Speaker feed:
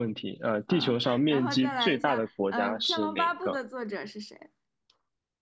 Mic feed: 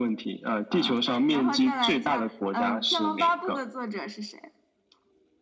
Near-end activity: none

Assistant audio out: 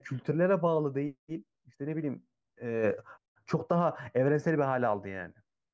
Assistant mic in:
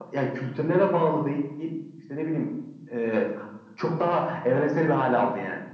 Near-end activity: none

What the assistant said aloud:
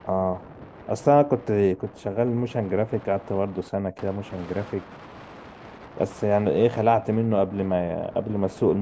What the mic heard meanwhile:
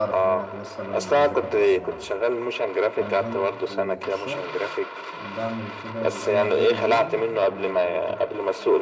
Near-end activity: present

